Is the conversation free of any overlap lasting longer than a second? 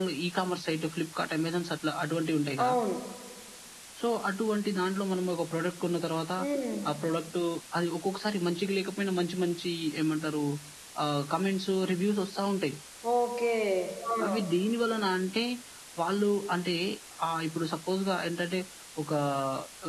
Yes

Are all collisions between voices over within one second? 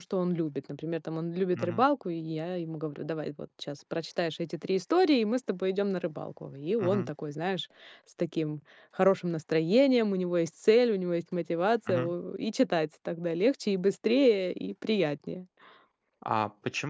Yes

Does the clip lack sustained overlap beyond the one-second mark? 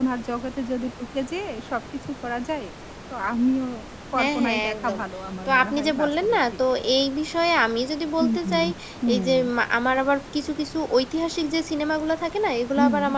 No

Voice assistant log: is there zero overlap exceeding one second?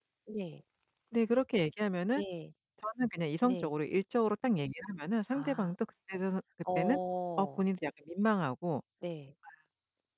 Yes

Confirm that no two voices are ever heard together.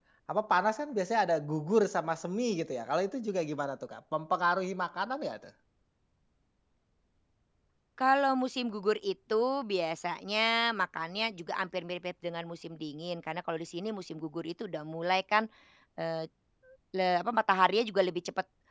Yes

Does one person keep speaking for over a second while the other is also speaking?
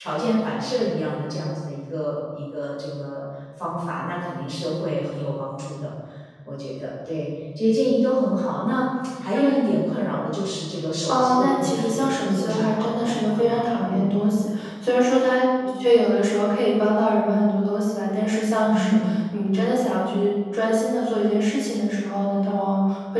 Yes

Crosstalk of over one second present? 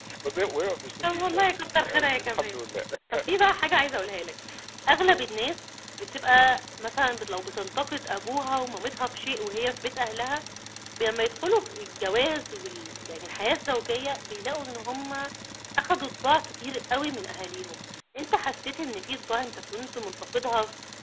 Yes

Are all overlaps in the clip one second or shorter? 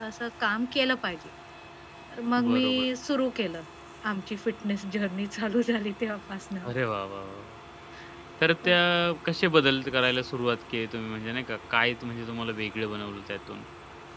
Yes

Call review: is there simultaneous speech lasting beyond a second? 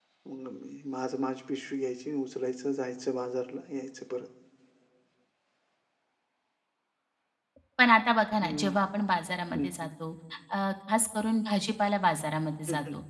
No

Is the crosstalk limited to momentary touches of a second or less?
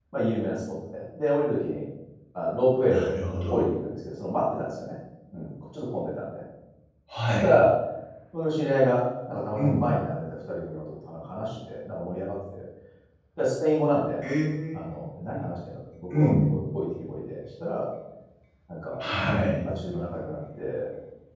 Yes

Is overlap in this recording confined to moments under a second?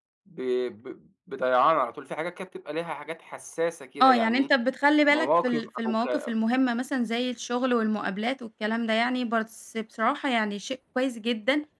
No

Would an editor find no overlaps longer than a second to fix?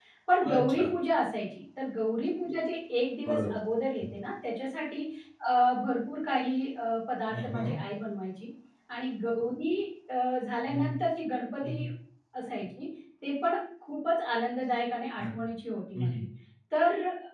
Yes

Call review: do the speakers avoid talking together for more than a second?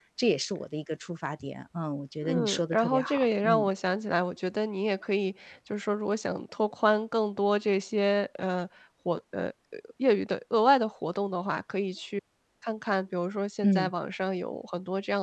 No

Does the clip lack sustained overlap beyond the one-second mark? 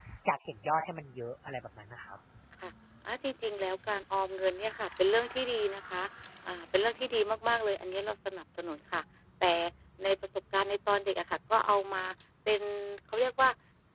Yes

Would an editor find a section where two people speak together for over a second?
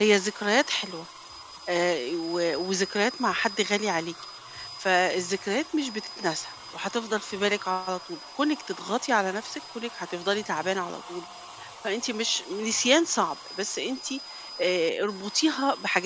No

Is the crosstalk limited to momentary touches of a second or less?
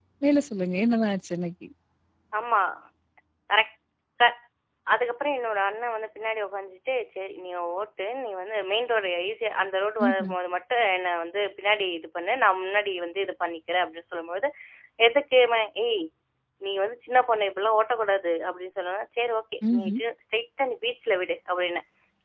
Yes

